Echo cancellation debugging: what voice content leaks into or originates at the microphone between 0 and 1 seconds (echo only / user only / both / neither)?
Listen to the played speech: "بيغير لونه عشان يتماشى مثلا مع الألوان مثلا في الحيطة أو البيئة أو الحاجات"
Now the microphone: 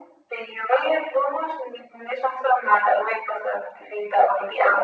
echo only